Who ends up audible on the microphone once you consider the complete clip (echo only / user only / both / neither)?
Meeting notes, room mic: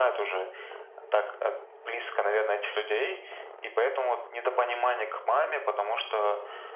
echo only